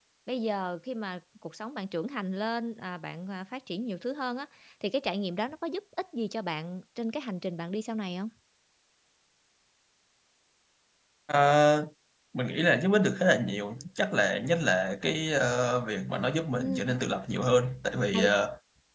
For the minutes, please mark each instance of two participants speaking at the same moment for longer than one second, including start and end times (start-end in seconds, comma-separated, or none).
none